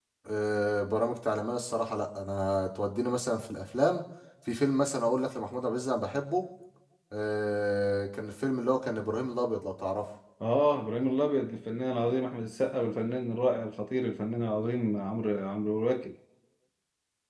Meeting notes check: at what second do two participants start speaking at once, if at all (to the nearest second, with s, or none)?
none